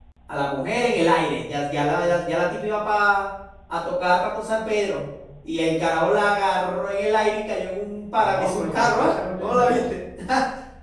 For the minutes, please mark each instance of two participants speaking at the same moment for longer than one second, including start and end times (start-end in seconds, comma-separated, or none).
8.2-9.9